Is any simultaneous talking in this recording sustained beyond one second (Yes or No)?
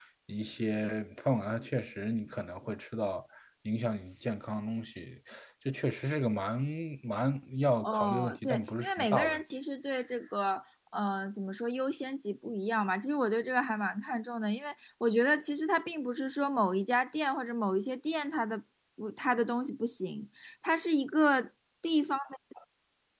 Yes